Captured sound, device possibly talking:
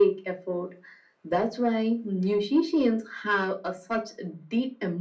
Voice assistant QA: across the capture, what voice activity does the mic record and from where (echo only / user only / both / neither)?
echo only